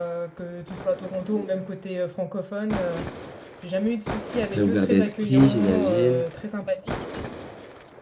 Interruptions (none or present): present